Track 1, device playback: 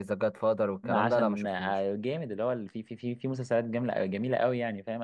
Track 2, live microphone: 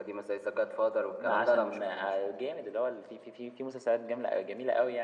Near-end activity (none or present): none